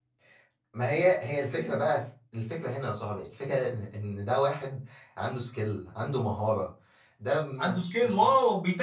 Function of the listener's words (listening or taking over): taking over